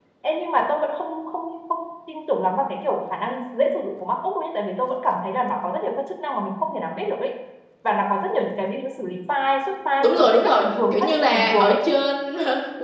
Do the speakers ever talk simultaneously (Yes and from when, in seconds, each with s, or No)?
Yes, from 10.0 s